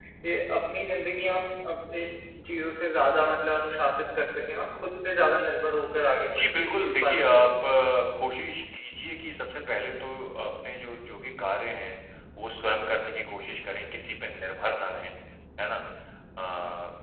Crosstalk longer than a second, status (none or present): present